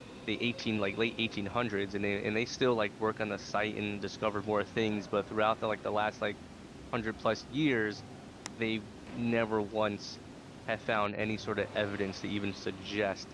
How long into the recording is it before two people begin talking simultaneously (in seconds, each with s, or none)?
none